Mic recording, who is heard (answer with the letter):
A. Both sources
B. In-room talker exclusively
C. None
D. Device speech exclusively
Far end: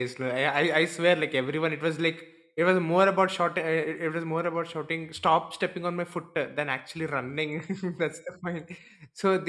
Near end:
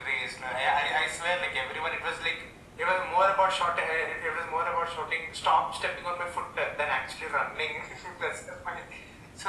D